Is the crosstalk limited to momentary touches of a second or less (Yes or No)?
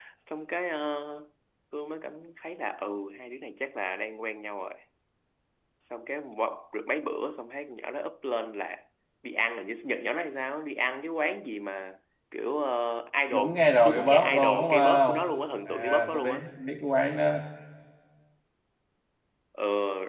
No